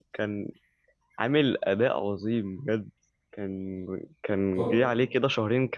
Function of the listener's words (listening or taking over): listening